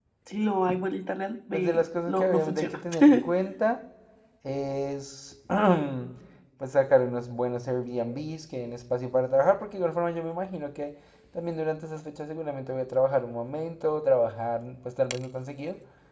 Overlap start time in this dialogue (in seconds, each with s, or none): 1.5 s